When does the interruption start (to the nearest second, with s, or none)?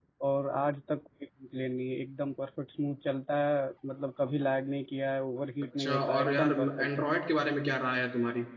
6 s